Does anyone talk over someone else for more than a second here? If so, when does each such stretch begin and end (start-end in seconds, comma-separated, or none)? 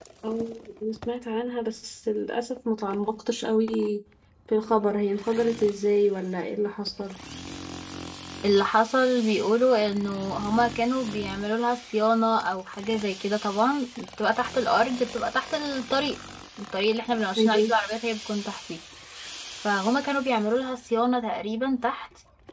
none